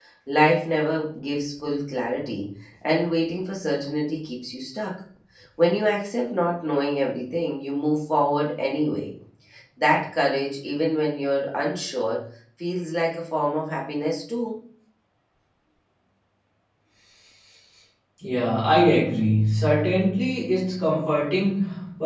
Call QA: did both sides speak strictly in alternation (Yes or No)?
Yes